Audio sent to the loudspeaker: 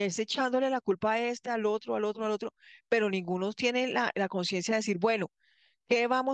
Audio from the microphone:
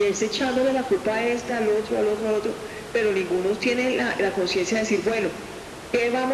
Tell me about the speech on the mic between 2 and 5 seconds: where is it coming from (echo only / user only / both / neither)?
echo only